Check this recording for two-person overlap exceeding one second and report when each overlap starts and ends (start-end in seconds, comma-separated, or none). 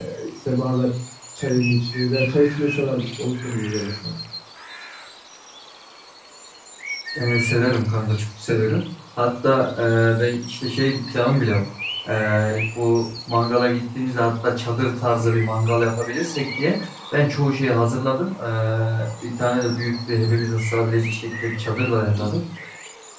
none